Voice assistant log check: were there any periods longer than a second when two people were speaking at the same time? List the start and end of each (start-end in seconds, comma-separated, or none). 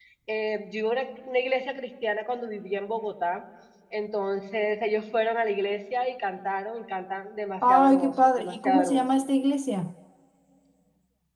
7.7-9.0